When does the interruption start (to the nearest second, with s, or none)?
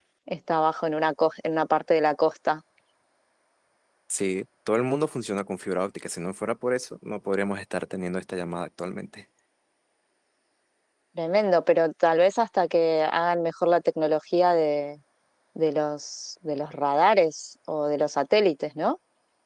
none